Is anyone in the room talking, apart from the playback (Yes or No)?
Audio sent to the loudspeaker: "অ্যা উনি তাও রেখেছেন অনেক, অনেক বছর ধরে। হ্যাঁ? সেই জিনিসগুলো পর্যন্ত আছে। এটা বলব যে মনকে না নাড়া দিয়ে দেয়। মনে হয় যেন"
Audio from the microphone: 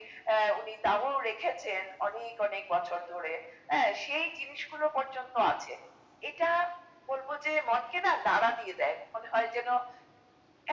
No